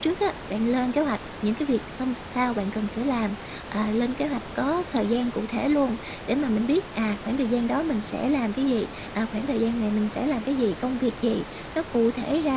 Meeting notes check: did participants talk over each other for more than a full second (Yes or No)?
No